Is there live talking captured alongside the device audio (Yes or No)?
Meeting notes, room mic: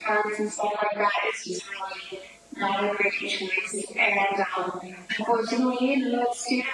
No